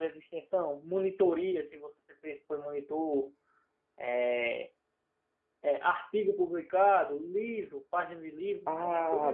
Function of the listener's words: taking over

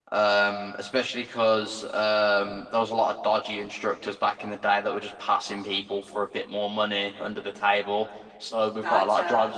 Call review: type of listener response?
listening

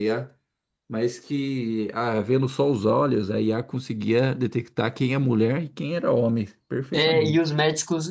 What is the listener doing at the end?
taking over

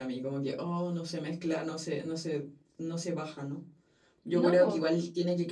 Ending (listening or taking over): listening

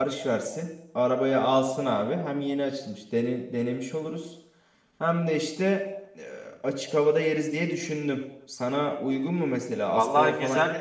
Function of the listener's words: taking over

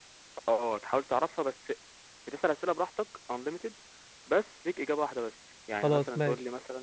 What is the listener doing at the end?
listening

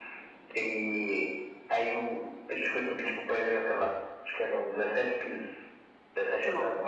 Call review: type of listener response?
listening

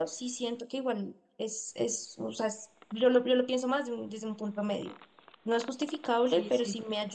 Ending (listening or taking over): listening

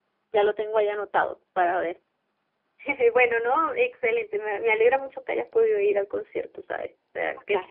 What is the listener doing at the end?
taking over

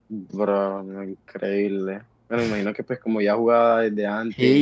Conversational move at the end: taking over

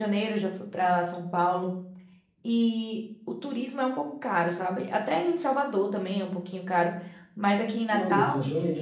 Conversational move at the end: taking over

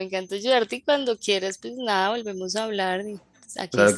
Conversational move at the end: taking over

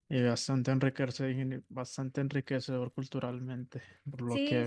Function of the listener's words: taking over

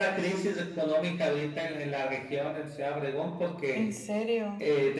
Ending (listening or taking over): listening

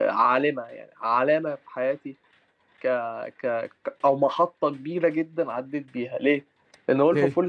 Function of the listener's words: listening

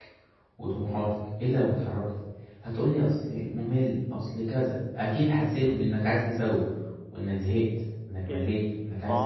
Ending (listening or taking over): taking over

